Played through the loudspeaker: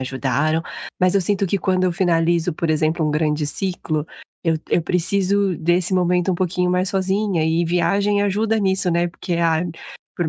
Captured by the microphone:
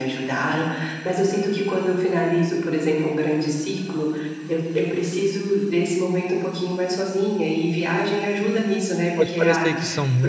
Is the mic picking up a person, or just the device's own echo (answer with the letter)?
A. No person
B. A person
B